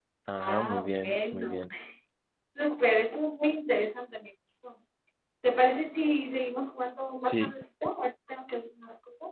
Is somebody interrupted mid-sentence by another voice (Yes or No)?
Yes